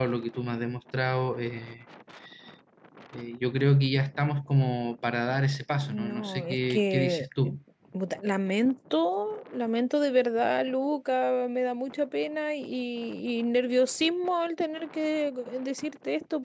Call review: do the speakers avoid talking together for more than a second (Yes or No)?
No